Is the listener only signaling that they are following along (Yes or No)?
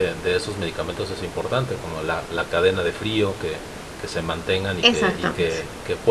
Yes